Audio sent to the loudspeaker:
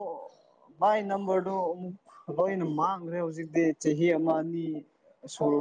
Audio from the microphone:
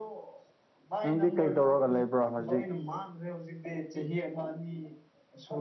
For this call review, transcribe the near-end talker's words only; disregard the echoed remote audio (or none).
ꯅꯪꯗꯤ ꯀꯩ ꯇꯧꯔꯒ ꯂꯩꯕ꯭ꯔꯣ ꯍꯧꯖꯤꯛ